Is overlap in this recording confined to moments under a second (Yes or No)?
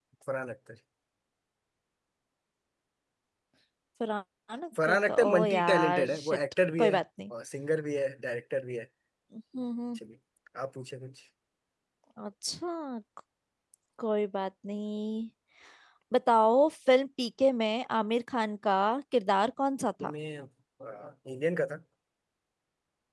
No